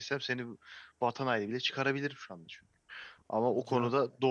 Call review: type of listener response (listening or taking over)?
listening